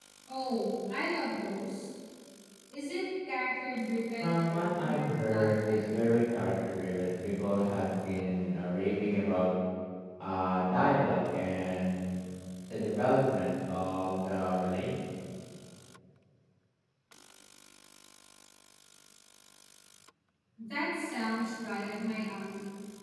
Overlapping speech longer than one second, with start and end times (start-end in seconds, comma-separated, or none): 4.2-6.1